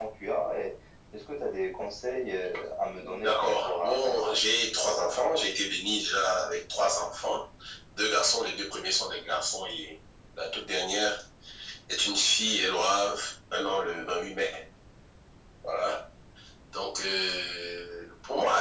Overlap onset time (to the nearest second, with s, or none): 3 s